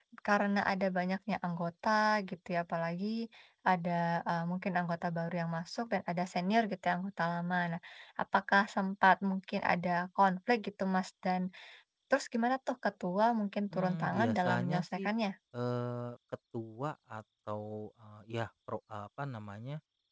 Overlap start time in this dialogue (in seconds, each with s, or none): 13.7 s